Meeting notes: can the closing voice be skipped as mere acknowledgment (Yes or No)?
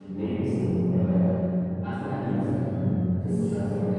No